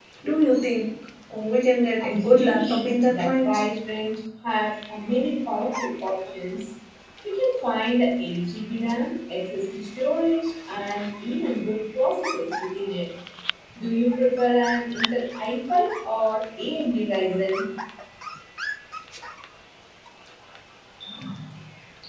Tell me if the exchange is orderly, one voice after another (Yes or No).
No